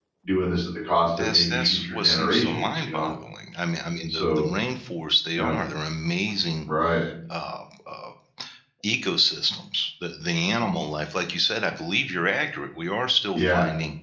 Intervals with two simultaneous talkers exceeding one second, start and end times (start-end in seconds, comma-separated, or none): 1.3-3.1